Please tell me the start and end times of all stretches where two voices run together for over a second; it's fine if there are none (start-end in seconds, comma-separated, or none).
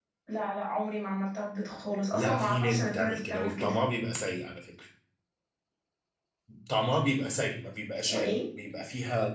2.1-3.7